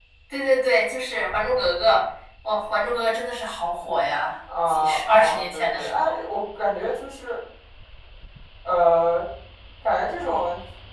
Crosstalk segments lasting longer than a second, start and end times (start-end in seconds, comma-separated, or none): 4.7-6.1